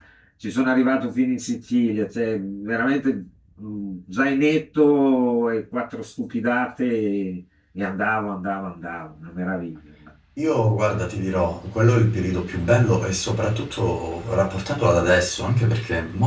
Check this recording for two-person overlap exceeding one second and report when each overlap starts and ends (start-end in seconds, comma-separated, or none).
none